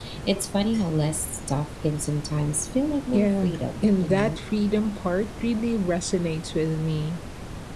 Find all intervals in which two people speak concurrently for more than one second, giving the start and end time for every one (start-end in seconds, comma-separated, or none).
3.1-4.4